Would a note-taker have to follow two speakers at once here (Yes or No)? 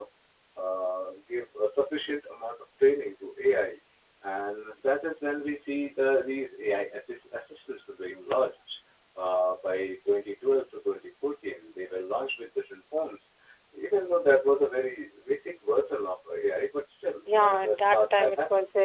Yes